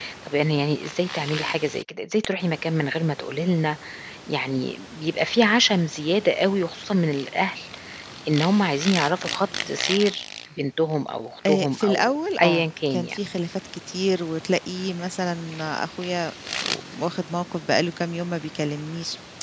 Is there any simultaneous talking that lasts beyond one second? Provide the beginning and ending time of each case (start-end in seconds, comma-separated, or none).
11.5-13.2